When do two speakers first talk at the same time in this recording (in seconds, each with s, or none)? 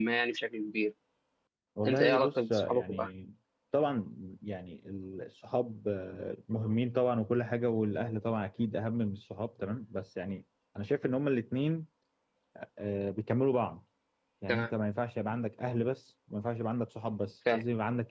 1.9 s